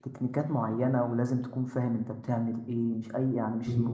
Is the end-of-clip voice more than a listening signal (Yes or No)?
No